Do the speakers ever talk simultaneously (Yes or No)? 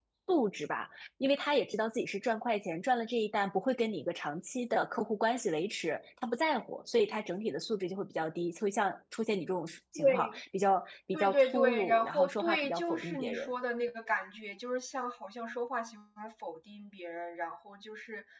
Yes